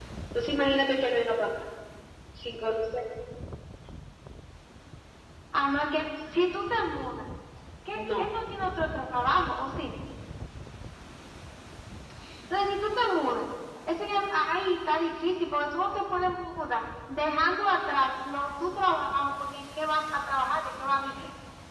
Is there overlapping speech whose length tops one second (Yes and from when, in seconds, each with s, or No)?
No